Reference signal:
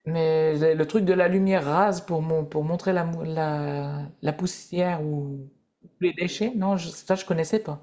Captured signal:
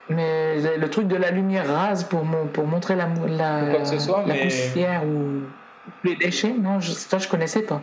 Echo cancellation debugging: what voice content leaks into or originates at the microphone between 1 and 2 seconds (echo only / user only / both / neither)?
echo only